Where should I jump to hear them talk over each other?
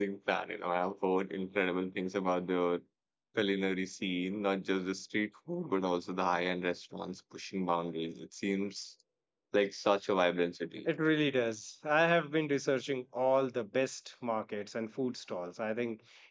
none

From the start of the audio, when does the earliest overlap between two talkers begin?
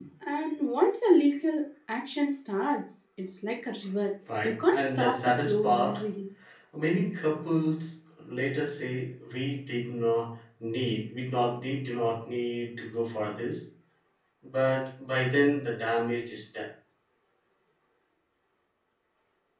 4 s

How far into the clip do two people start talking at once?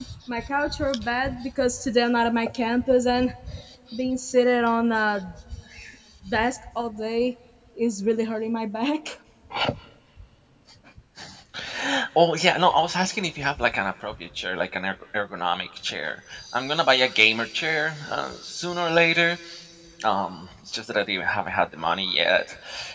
none

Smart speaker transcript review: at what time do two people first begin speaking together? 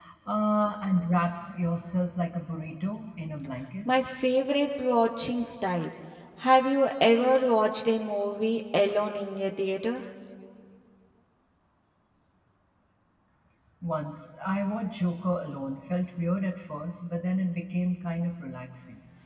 none

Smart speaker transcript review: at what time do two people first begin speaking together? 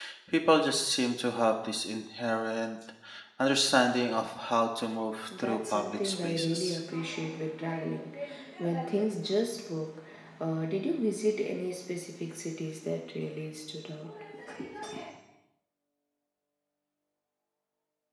5 s

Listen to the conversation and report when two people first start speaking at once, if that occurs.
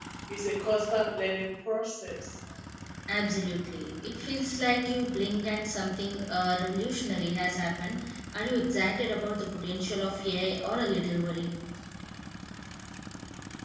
none

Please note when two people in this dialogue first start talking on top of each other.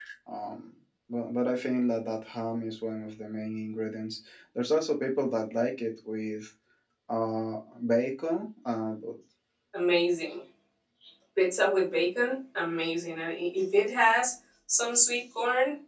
none

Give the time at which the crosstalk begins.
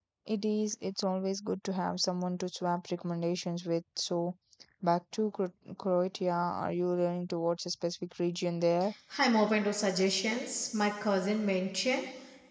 none

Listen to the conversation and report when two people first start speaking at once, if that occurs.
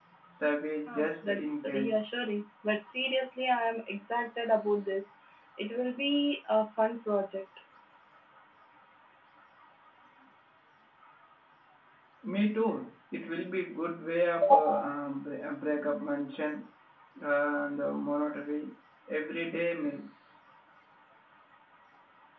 1 s

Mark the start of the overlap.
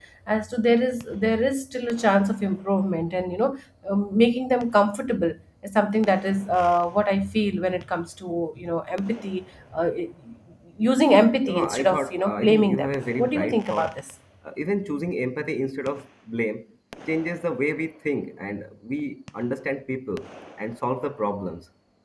11 s

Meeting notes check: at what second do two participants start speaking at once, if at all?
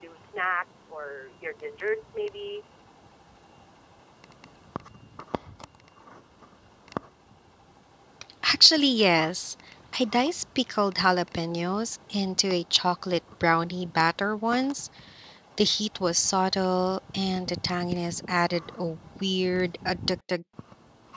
none

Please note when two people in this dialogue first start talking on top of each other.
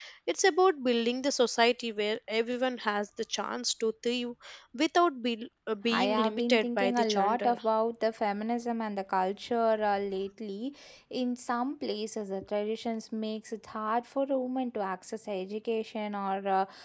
6 s

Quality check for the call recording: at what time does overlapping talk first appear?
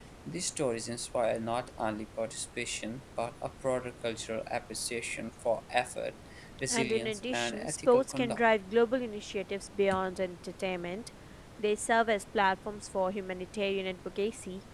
7 s

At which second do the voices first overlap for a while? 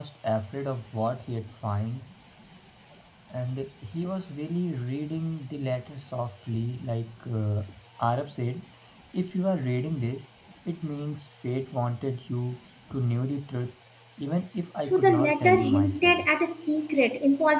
15 s

